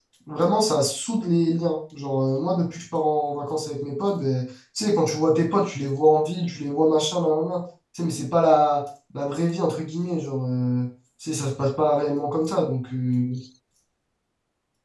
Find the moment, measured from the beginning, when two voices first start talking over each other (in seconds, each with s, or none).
none